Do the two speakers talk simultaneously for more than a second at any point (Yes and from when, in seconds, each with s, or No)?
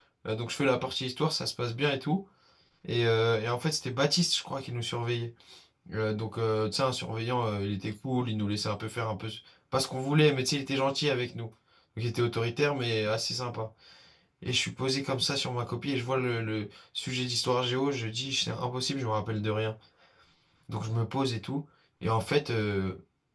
No